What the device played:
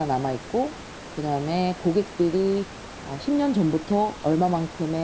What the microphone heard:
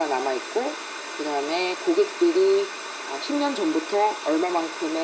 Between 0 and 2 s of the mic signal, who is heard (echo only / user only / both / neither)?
echo only